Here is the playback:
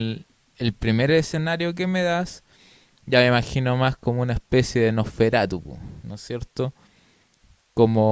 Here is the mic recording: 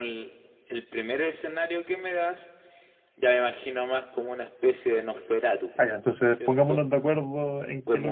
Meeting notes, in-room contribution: present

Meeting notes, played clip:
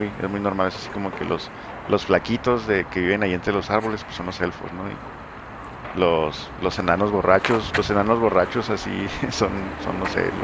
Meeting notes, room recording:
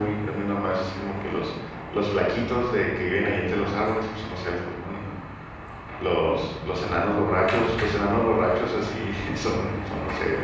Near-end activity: none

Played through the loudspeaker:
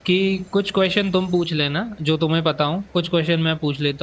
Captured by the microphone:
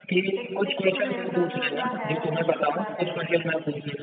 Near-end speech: present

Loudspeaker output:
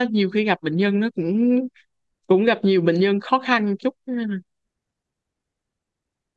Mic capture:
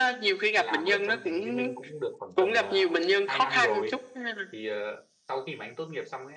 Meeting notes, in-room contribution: present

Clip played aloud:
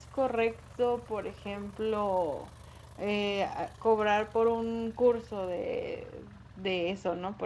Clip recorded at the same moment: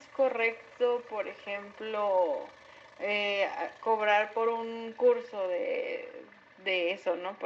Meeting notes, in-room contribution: none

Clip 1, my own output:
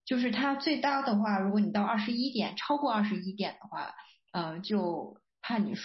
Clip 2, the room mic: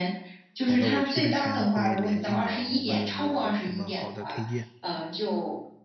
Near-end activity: present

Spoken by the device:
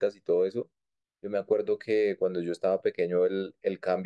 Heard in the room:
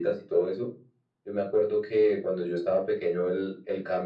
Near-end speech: none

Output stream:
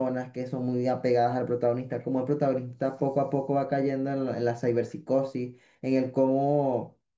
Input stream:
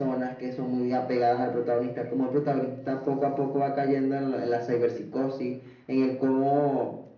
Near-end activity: none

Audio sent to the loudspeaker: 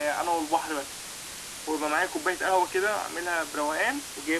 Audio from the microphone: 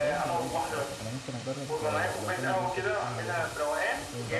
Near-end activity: present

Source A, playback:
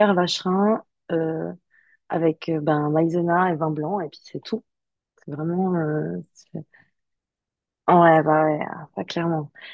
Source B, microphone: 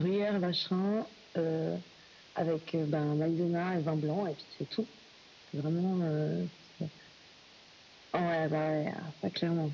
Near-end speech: none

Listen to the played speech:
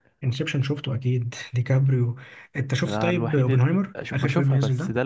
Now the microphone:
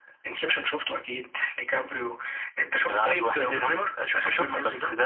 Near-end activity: present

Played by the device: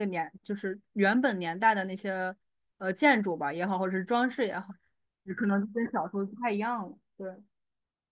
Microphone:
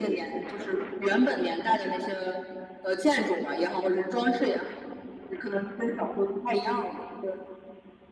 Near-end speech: none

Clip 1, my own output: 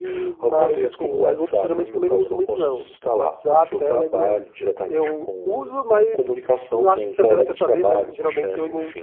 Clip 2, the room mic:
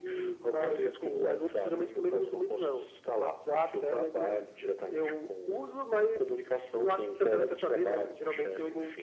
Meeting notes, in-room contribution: none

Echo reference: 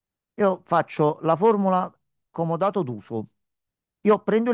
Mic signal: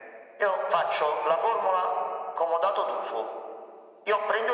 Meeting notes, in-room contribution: none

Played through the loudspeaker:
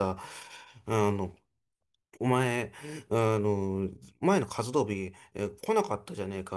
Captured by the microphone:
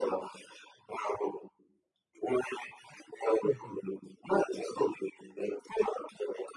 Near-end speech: present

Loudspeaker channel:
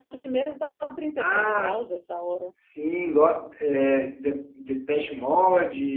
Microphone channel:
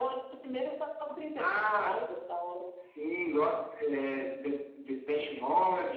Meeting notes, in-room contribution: none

